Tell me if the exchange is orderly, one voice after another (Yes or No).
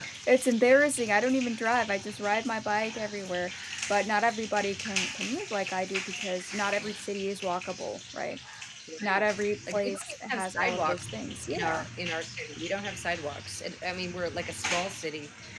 No